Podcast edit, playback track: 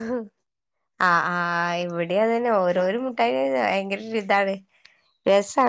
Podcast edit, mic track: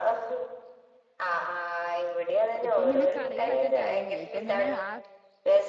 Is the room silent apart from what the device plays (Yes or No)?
No